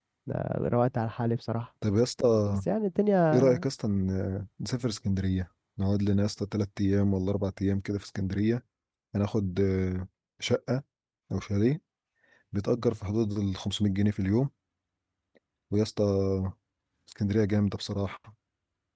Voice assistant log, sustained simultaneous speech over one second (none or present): none